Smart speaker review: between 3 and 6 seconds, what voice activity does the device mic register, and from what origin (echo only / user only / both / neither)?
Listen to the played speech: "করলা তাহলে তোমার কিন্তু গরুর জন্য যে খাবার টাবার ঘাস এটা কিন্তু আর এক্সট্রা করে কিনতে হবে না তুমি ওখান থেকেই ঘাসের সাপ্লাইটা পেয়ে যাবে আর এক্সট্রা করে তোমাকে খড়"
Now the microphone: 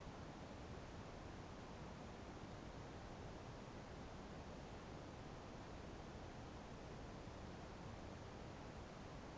neither